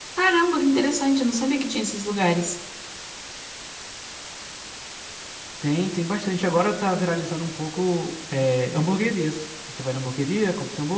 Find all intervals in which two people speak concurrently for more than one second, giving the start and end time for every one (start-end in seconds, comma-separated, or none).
none